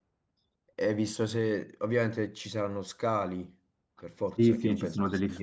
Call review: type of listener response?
taking over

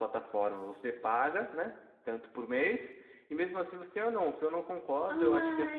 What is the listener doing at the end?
taking over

